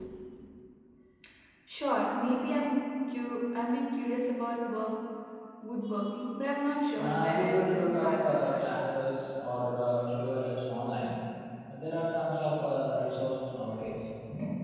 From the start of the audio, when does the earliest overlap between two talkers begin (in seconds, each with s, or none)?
7.0 s